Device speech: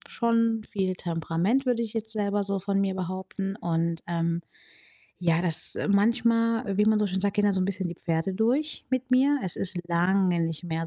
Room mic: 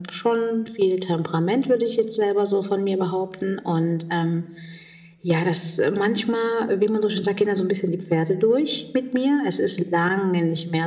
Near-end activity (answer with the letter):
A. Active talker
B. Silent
B